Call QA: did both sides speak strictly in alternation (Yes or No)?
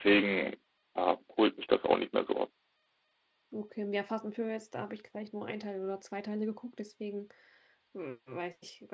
Yes